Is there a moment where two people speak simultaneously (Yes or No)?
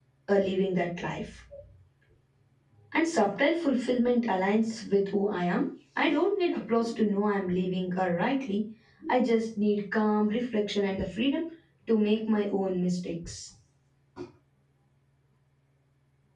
No